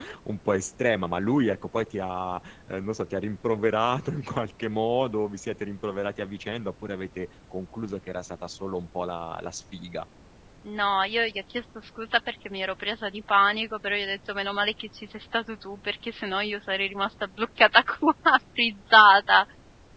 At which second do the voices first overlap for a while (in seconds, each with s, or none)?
none